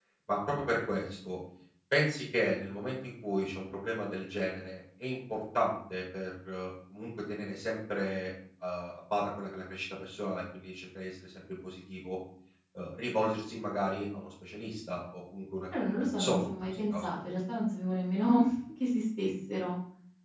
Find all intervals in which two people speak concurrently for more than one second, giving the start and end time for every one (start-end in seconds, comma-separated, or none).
15.8-17.1